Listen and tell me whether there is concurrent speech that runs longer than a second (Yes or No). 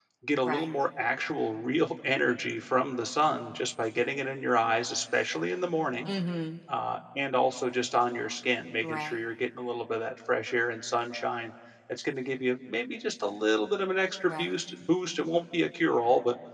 No